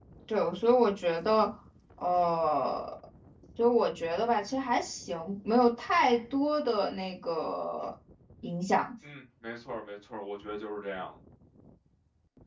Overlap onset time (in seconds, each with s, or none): none